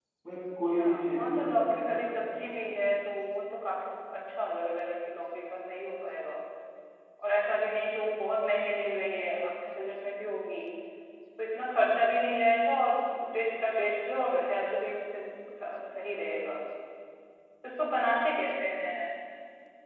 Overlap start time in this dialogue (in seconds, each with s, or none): 0.8 s